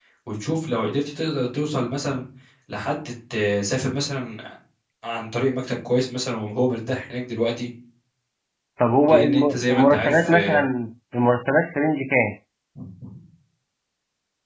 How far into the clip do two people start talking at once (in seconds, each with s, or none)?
9.1 s